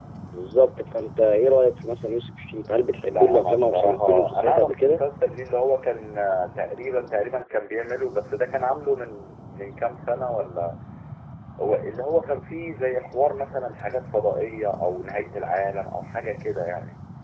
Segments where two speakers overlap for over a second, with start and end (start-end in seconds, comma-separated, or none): 3.1-5.0